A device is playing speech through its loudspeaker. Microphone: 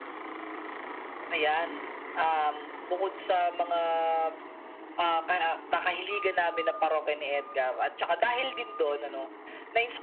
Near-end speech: none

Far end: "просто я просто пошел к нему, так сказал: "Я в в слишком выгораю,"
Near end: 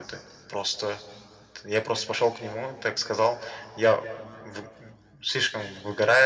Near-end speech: none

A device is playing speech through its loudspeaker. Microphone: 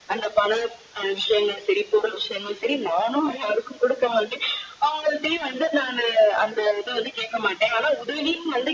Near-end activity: none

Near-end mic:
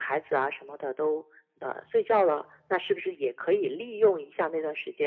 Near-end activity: none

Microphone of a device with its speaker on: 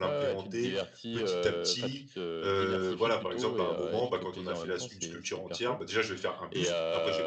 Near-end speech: present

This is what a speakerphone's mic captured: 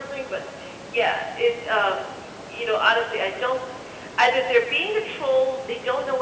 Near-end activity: none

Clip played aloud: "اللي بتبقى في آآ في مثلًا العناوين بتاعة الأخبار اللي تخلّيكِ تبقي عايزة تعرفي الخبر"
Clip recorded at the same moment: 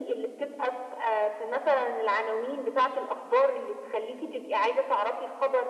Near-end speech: none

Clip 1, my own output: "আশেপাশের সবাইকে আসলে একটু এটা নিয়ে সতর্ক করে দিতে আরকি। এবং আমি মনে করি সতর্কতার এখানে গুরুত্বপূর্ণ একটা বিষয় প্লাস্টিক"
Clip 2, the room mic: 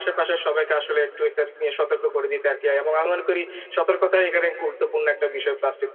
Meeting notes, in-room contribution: none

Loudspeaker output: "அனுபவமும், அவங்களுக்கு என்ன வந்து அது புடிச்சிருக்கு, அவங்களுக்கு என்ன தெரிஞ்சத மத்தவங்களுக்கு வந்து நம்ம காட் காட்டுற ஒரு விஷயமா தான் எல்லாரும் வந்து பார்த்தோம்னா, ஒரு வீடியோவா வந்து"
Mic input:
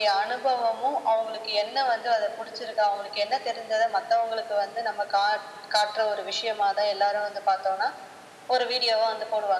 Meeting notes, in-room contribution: none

